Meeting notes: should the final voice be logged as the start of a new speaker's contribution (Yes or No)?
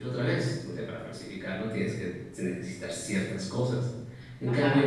No